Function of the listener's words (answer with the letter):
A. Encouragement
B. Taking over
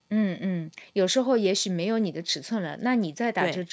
A